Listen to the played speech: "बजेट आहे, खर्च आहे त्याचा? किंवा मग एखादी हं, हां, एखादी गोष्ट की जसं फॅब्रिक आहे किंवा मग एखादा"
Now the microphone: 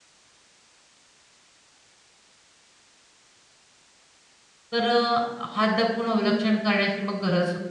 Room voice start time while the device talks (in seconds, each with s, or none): 4.7 s